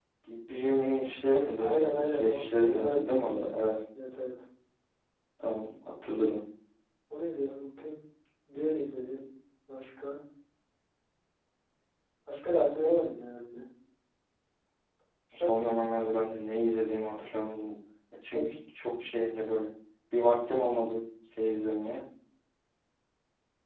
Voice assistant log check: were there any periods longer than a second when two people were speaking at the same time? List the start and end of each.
1.6-3.5

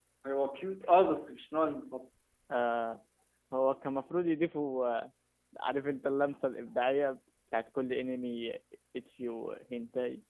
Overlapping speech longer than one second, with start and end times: none

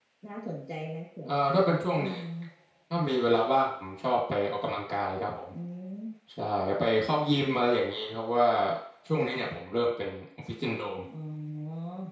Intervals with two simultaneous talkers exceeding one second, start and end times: none

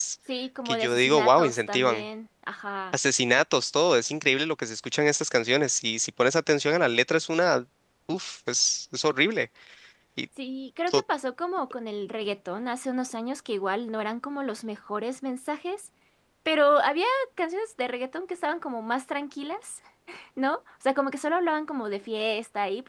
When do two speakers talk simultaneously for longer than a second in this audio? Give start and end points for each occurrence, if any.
0.7-2.0

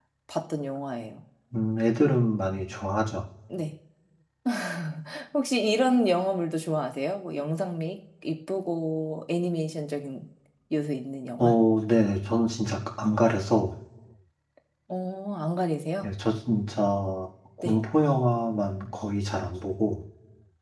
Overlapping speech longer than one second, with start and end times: none

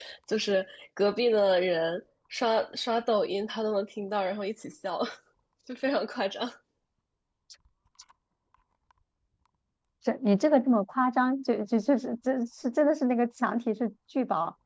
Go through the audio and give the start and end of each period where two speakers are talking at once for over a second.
none

